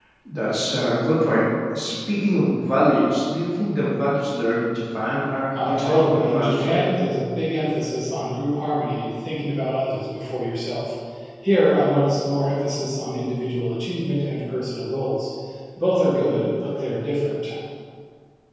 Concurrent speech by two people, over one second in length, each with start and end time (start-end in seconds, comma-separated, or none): 5.5-6.8